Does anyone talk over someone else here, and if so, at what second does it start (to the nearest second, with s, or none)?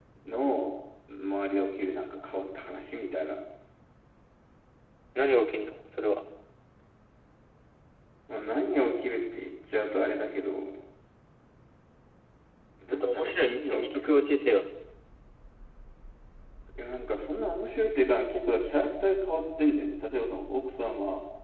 13 s